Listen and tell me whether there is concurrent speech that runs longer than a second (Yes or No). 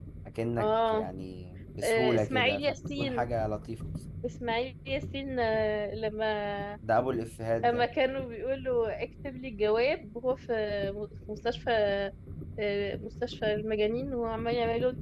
Yes